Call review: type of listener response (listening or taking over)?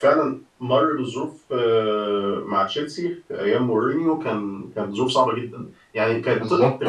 listening